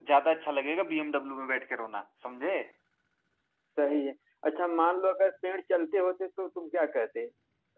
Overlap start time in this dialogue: none

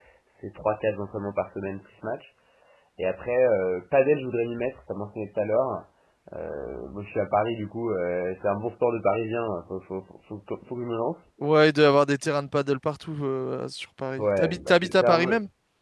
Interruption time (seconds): 14.2 s

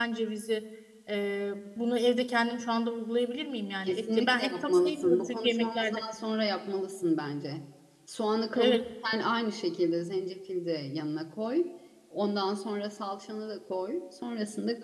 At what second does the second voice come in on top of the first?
3.9 s

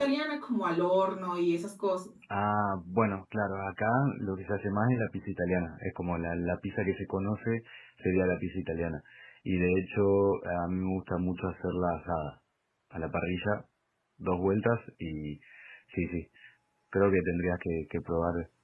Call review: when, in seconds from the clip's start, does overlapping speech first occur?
none

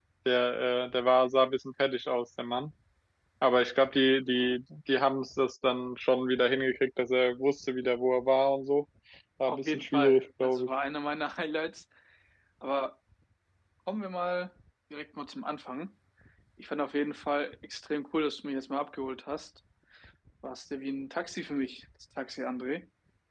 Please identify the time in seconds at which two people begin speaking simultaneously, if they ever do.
9.5 s

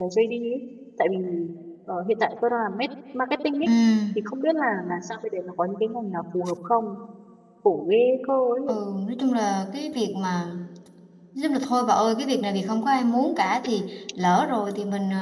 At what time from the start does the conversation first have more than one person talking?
none

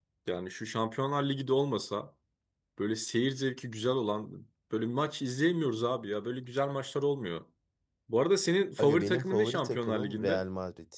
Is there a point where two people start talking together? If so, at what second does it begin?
8.8 s

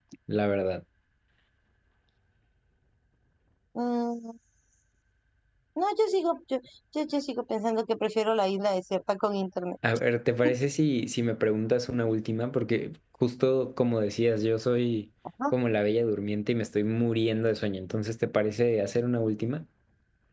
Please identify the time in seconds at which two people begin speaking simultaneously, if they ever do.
none

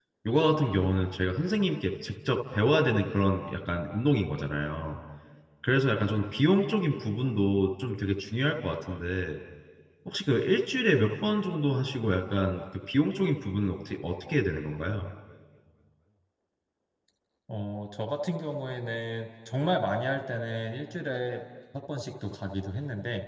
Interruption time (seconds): none

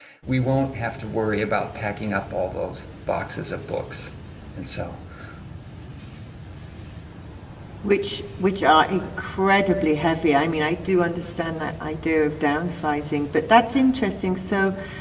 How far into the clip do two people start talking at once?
none

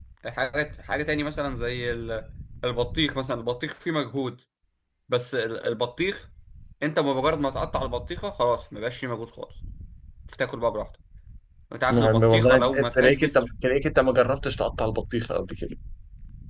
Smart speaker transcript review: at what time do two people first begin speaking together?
11.9 s

